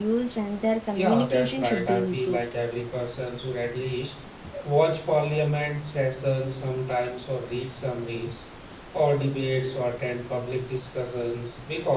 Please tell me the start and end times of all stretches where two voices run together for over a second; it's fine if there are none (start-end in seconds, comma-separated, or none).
0.9-2.4